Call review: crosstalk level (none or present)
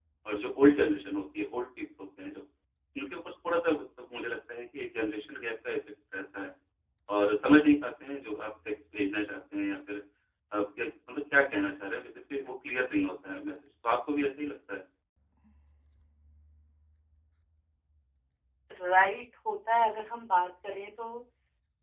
none